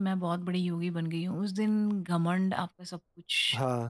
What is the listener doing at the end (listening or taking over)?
taking over